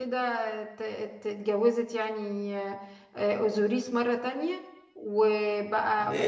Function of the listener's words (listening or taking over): taking over